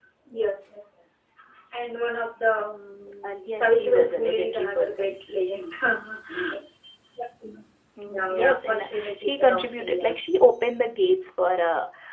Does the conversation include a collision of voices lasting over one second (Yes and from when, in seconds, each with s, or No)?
Yes, from 3.2 s